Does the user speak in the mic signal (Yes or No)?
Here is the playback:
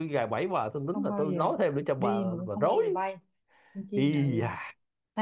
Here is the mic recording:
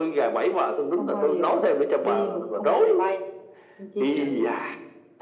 No